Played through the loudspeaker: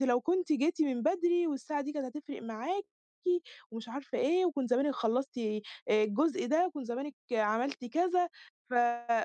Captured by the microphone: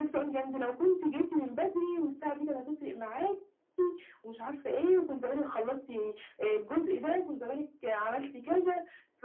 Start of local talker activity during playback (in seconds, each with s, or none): none